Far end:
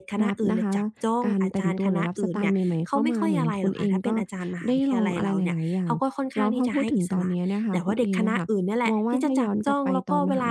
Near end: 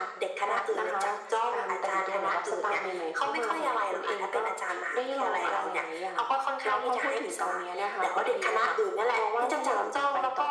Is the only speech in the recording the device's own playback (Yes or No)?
Yes